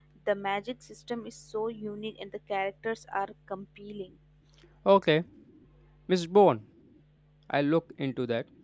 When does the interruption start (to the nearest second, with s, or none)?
none